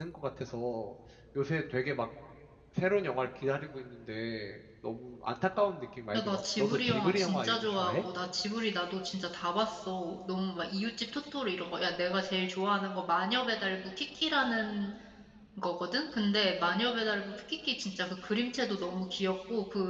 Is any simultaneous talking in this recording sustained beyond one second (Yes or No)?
Yes